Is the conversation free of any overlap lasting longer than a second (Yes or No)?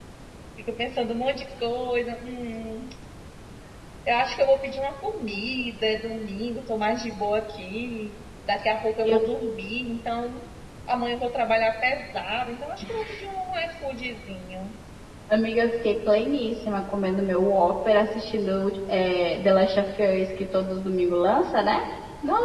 Yes